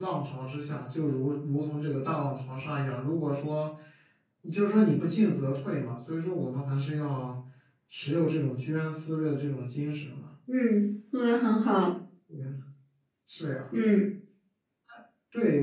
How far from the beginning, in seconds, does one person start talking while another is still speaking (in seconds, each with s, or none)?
none